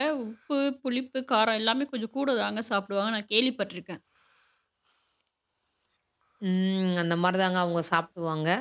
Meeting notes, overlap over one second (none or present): none